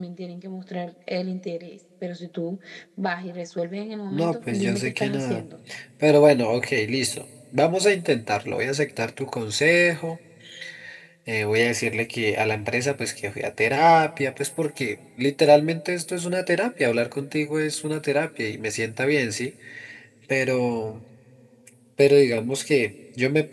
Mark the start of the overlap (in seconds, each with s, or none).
4.1 s